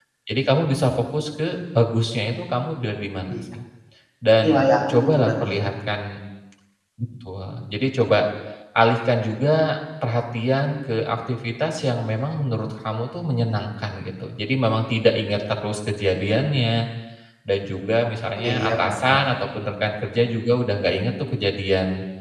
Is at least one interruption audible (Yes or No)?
Yes